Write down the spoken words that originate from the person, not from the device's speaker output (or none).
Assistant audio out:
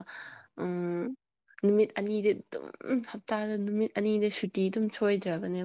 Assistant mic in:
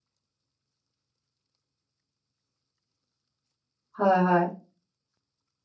ꯍꯣꯏ ꯍꯣꯏ